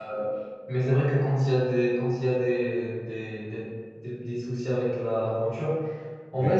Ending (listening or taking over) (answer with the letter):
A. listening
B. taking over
A